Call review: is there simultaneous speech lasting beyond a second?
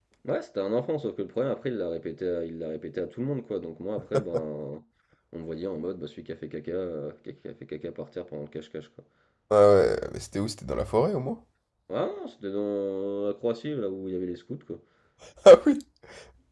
No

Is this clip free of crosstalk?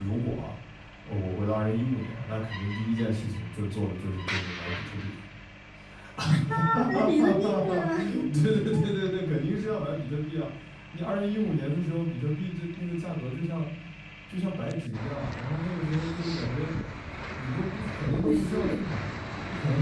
No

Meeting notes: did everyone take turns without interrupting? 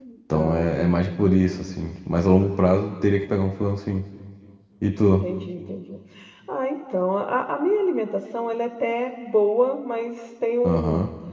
No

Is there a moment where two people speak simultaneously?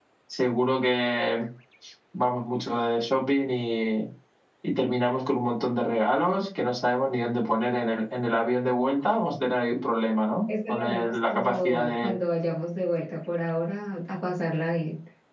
Yes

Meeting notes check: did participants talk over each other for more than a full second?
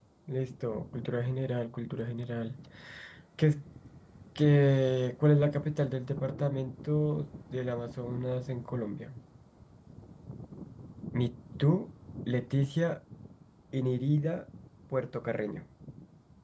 No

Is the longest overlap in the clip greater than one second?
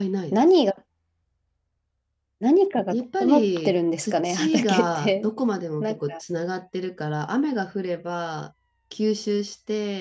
Yes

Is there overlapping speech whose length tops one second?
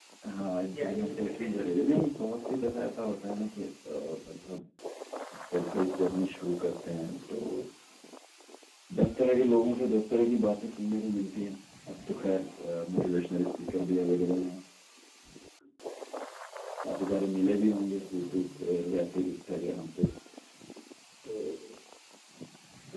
Yes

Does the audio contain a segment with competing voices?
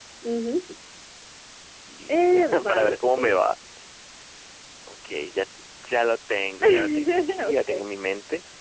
Yes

